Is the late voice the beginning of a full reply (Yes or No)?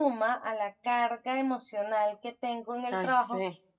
No